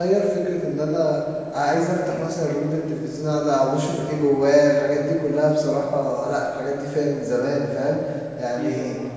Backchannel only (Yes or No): Yes